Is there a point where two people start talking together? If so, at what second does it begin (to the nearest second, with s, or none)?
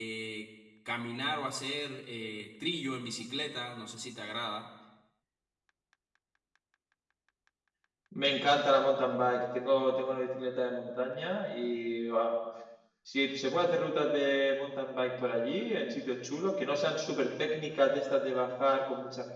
none